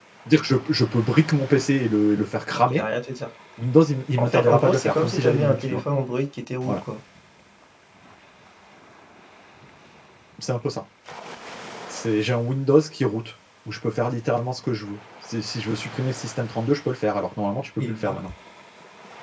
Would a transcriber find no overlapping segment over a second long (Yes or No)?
No